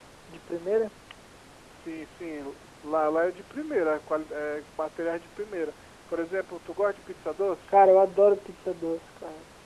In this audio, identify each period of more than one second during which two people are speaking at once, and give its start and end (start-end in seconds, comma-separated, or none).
none